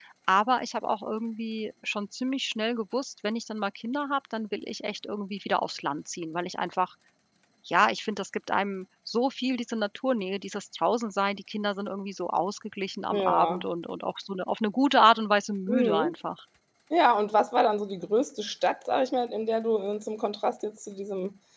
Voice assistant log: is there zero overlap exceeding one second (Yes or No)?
Yes